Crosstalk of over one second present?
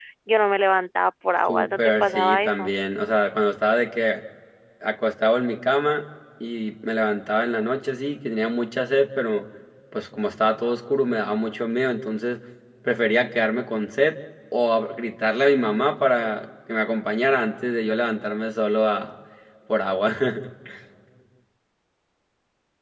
Yes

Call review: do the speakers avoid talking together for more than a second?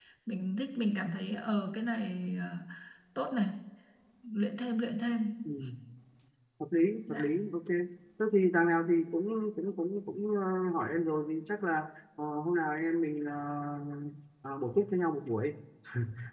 Yes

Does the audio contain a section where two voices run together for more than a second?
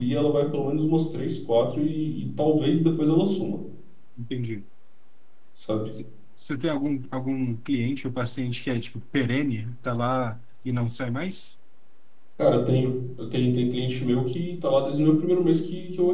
No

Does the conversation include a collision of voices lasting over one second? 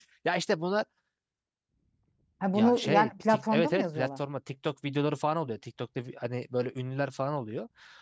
Yes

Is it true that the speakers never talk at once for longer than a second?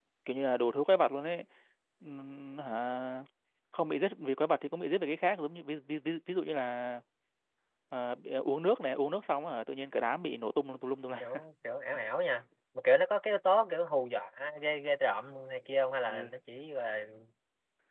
Yes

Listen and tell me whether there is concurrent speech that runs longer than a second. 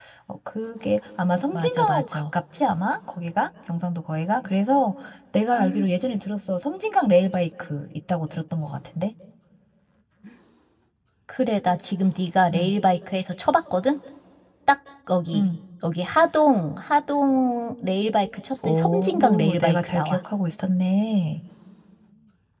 Yes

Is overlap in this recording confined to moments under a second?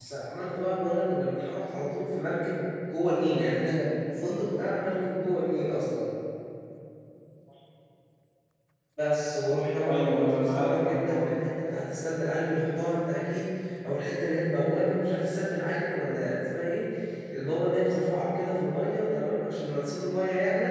No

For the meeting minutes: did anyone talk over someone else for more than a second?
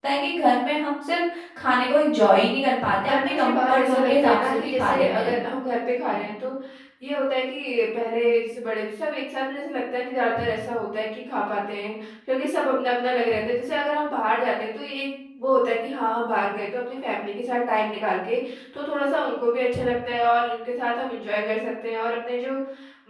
Yes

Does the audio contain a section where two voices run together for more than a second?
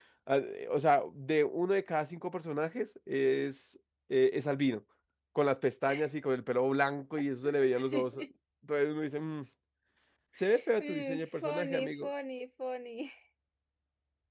Yes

